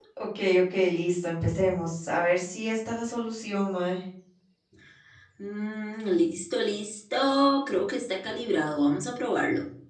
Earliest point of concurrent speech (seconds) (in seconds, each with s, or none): none